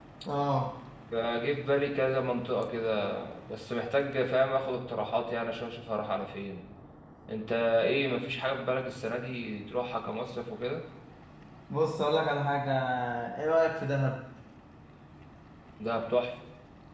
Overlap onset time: none

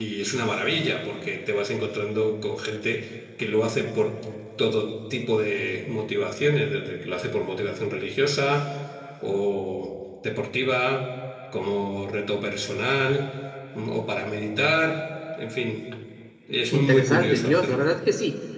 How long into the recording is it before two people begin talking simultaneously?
16.7 s

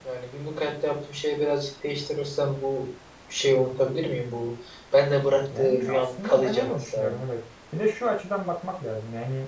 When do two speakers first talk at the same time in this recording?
5.6 s

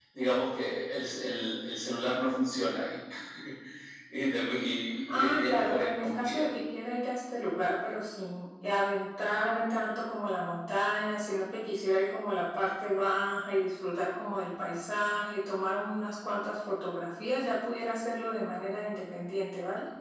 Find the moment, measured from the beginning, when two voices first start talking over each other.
5.1 s

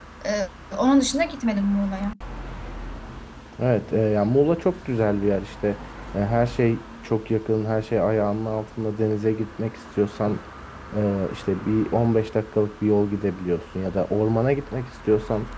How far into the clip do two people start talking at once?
none

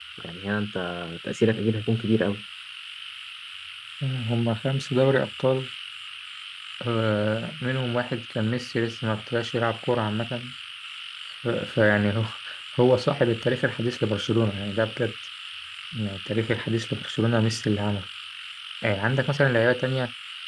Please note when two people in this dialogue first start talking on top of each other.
none

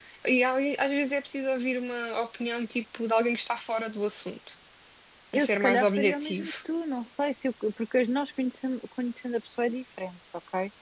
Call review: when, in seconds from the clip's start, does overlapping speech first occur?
5.3 s

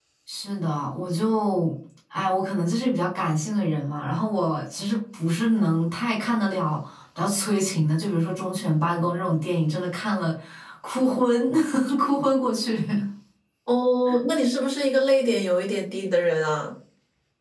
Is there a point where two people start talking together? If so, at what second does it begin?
none

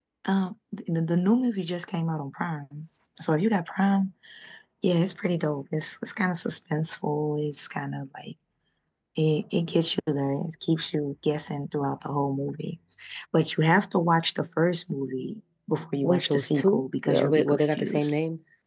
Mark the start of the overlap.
16.0 s

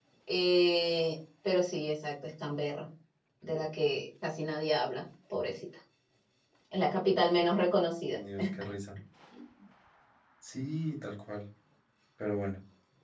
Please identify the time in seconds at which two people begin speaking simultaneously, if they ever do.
none

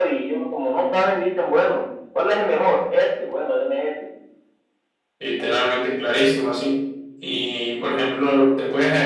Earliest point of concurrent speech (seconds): none

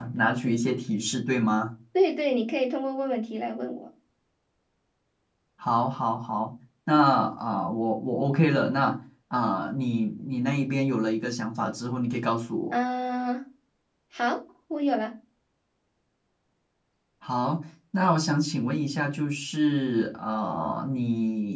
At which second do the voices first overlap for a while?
none

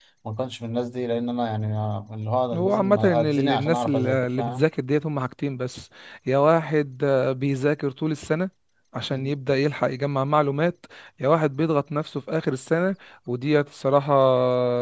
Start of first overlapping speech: 2.5 s

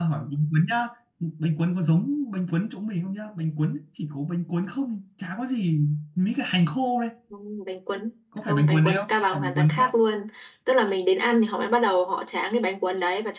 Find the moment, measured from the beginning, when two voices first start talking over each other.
8.4 s

